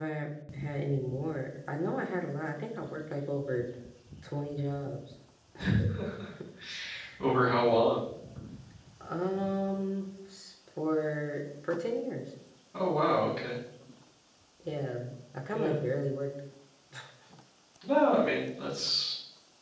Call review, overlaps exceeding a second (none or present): none